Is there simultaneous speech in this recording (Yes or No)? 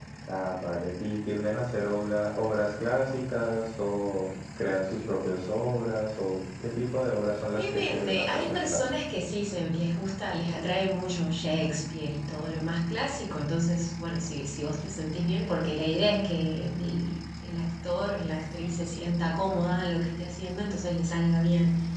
Yes